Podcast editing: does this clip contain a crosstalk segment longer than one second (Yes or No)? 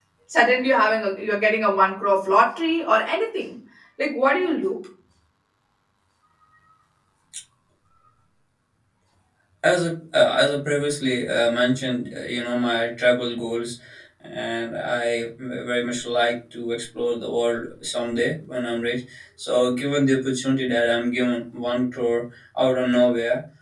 No